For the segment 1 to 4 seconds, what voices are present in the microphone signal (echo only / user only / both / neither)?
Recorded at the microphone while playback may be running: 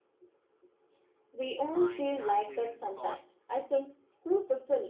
both